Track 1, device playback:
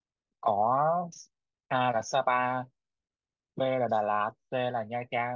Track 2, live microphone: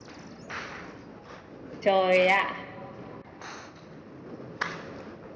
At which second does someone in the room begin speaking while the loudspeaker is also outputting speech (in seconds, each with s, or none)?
1.8 s